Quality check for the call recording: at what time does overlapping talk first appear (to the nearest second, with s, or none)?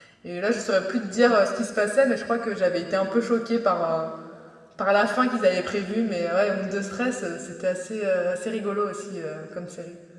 none